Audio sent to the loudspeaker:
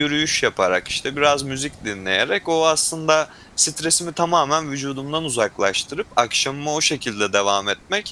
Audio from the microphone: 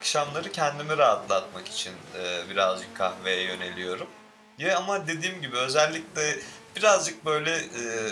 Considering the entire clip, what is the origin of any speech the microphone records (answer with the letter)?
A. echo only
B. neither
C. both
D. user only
D